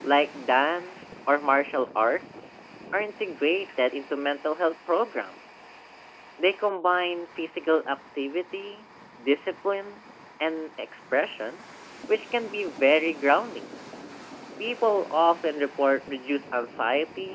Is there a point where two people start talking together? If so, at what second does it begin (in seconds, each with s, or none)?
none